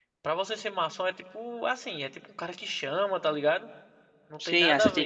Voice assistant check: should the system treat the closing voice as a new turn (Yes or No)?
Yes